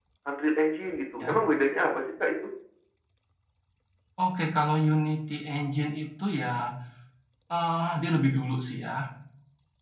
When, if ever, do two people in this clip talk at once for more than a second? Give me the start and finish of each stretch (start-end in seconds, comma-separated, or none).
none